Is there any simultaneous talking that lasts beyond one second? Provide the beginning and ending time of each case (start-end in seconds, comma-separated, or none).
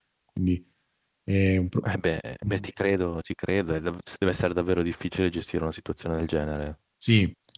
none